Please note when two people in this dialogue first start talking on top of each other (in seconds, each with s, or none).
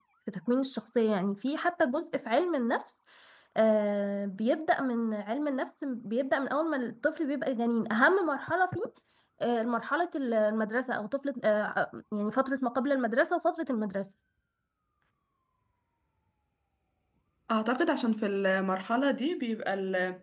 none